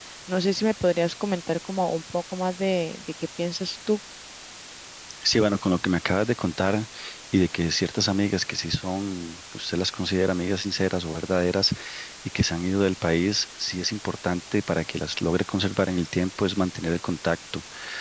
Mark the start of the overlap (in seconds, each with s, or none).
none